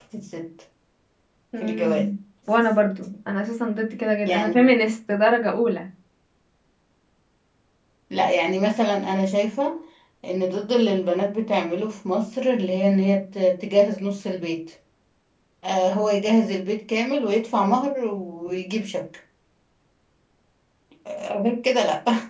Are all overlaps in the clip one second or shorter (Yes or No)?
Yes